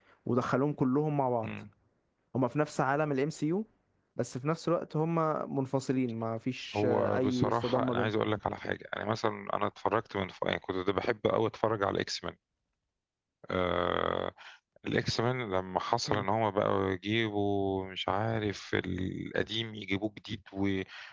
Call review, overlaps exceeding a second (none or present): present